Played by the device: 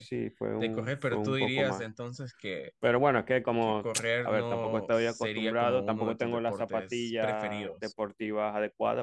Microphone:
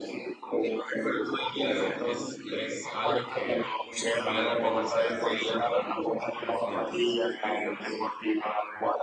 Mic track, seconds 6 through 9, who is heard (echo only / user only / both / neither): both